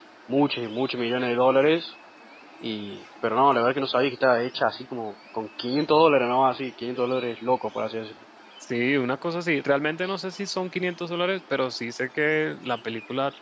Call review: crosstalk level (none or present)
none